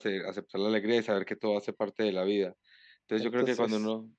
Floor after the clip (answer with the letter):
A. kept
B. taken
A